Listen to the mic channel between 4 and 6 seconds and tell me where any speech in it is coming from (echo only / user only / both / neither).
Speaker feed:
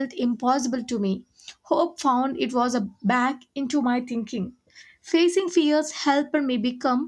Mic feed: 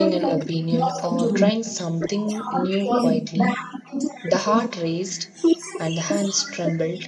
both